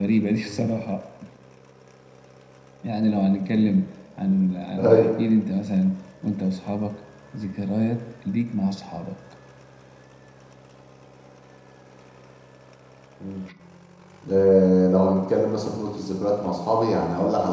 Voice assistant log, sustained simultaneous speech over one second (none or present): none